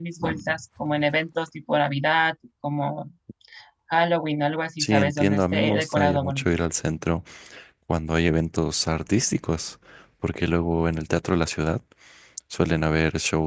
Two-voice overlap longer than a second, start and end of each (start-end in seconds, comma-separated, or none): 4.8-6.5